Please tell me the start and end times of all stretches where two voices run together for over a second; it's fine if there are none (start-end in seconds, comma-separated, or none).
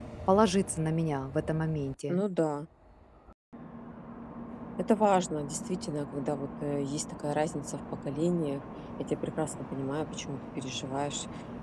none